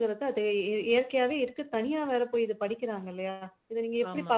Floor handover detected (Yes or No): No